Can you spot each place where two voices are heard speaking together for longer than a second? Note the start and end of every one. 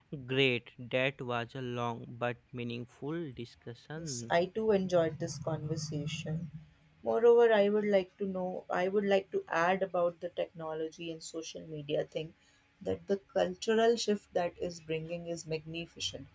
none

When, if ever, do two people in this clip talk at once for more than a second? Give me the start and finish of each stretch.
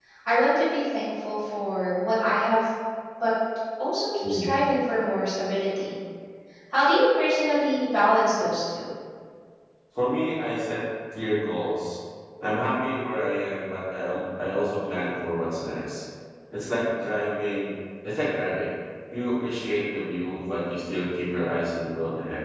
none

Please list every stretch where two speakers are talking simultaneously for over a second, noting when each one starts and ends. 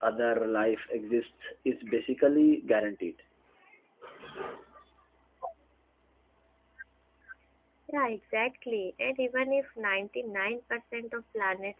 none

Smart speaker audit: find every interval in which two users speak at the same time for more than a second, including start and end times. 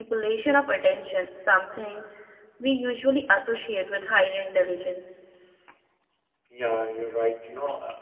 none

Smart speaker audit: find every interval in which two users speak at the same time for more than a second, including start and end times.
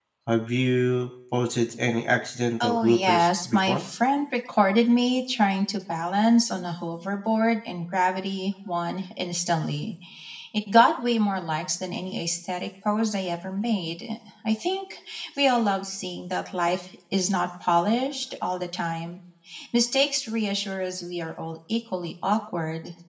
2.6-3.8

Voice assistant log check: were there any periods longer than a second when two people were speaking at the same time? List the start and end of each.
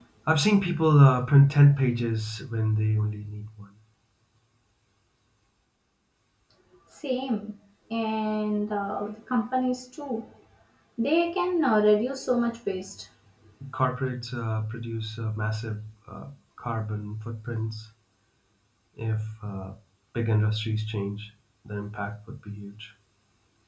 none

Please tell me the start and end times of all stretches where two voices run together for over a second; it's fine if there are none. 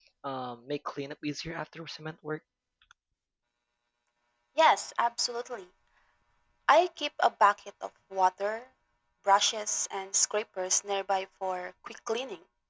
none

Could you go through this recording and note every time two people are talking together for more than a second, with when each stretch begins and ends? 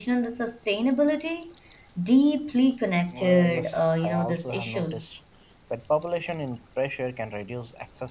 3.2-5.2

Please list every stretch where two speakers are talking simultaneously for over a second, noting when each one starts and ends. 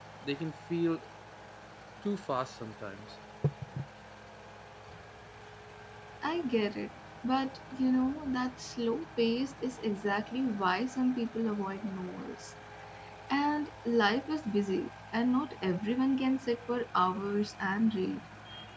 none

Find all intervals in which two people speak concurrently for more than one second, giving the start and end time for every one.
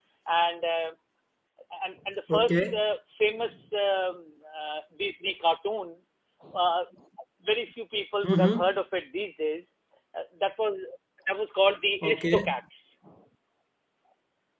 none

